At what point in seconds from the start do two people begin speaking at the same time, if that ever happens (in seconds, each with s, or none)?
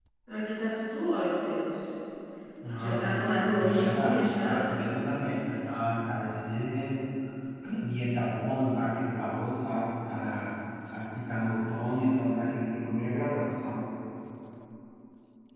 2.8 s